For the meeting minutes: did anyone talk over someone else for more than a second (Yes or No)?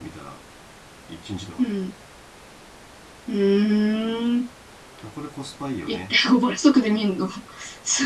No